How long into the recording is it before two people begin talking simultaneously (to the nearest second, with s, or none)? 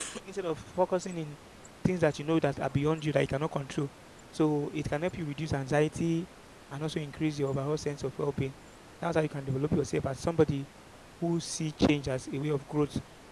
none